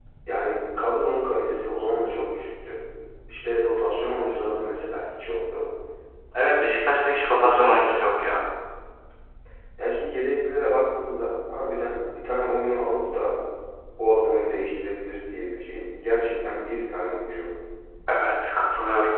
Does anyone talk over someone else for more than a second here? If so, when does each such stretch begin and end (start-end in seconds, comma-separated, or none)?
none